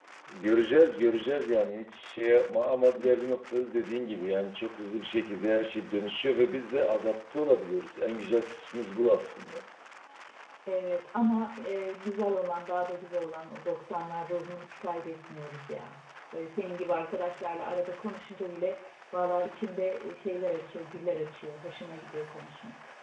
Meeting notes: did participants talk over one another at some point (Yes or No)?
No